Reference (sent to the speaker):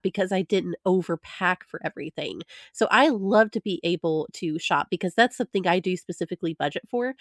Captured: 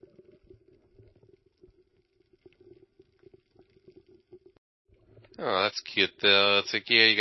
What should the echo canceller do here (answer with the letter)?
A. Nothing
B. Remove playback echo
A